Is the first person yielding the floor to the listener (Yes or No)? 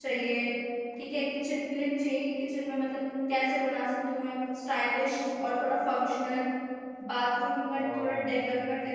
No